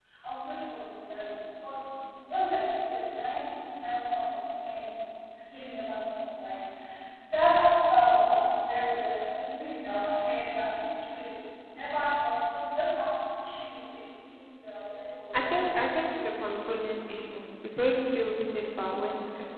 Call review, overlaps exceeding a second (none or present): none